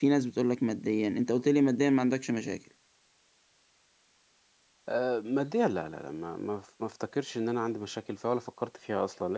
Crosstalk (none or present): none